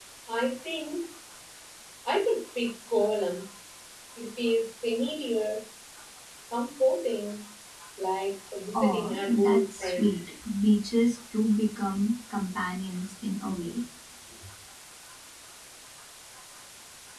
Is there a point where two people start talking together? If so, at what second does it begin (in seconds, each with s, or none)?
8.7 s